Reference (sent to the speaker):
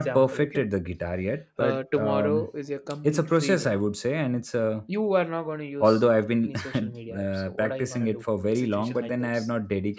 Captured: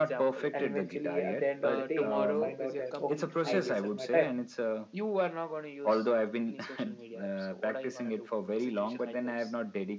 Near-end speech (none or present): present